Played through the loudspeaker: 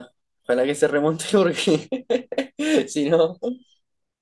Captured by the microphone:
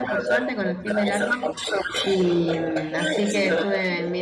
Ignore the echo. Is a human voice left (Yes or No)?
Yes